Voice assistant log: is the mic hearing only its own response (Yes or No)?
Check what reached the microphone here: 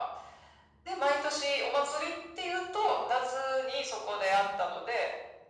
Yes